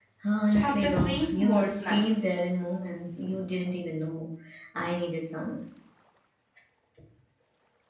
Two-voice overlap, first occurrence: 1 s

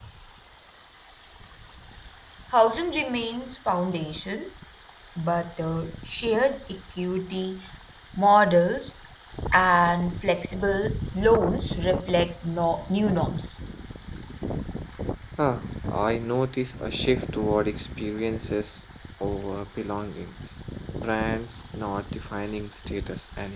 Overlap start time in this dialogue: none

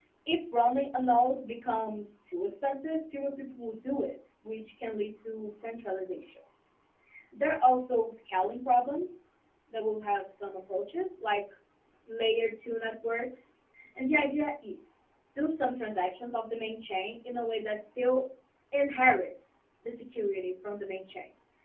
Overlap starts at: none

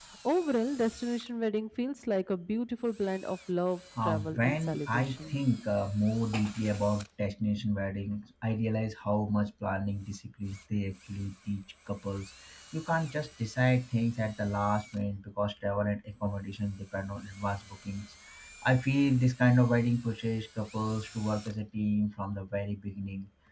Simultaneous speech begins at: 4 s

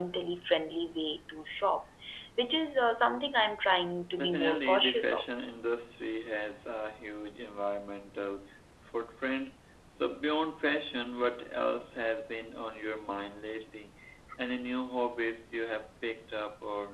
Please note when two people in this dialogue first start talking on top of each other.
4 s

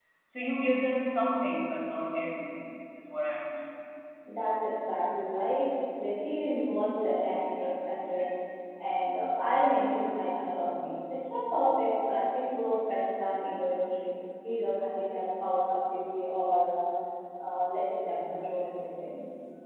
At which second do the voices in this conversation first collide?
none

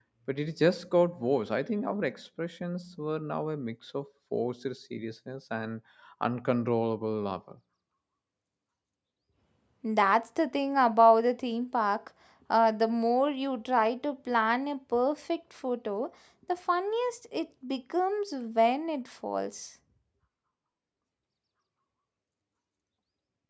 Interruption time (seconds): none

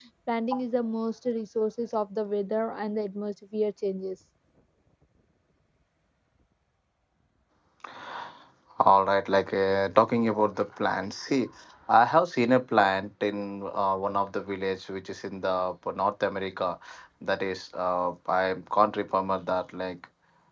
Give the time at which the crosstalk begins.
none

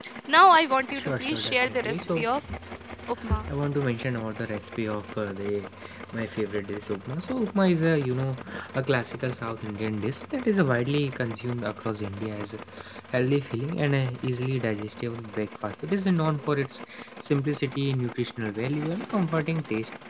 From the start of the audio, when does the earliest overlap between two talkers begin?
1 s

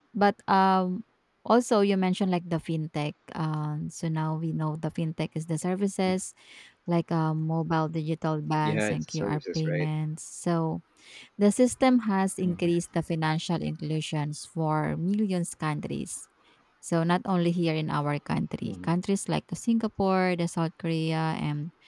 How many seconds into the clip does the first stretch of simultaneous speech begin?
9 s

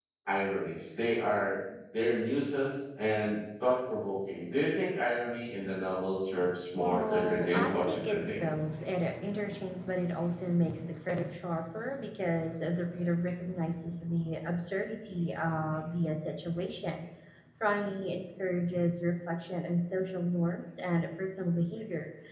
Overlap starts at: 7 s

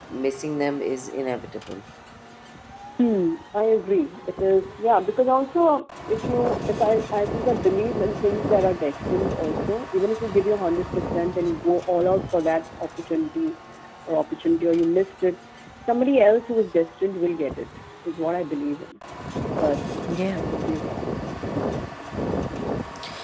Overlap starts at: none

